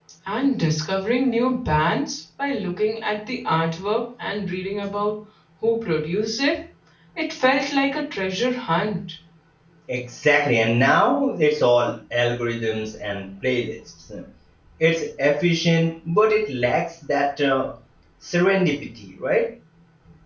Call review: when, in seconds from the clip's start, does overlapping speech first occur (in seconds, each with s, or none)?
none